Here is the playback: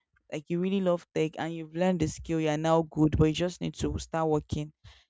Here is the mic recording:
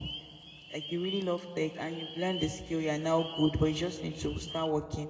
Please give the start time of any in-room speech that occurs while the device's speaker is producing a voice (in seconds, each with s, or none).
none